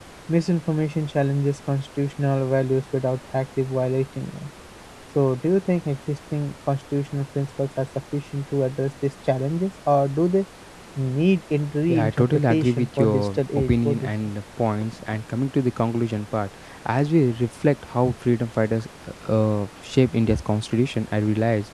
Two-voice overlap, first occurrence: 11.9 s

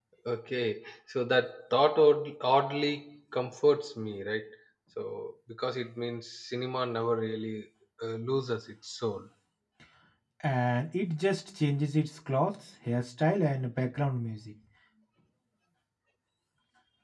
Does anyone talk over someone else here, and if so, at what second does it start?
none

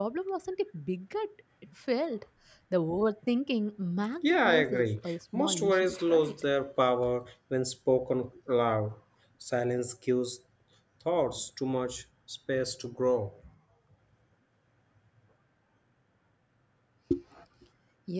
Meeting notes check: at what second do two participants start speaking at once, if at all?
4.2 s

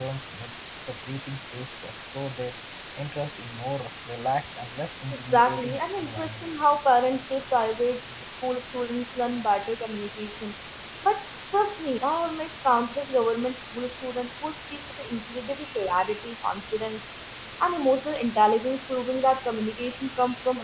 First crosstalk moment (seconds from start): 5.3 s

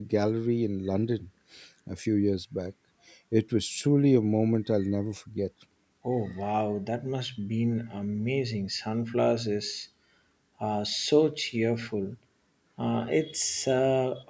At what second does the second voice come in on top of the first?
none

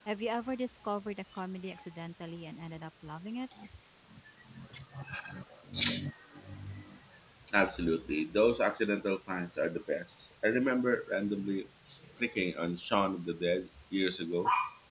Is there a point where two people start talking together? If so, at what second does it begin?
none

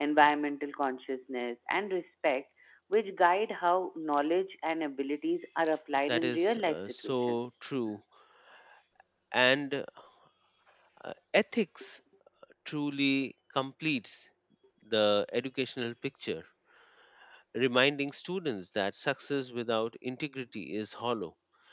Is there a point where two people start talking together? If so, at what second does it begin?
6.1 s

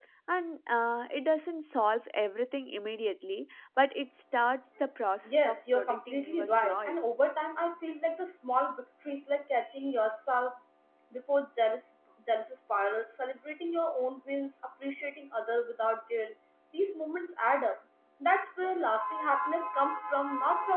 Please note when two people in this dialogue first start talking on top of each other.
5.2 s

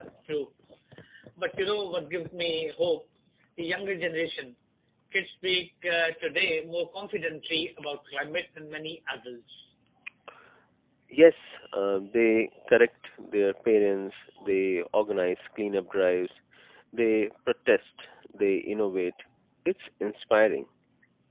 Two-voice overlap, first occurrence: none

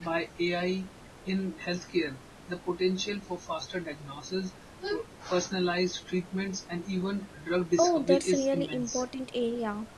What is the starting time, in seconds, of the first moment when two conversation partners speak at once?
7.8 s

